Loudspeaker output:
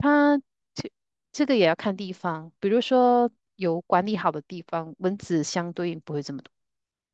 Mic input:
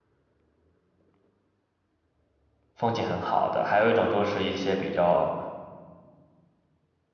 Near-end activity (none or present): present